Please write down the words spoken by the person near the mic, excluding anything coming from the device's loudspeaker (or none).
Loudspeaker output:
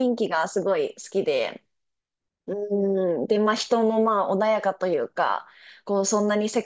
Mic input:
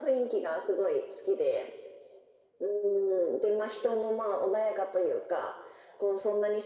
none